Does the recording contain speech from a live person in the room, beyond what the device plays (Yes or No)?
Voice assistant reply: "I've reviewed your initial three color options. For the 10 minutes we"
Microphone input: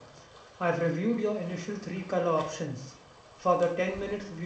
No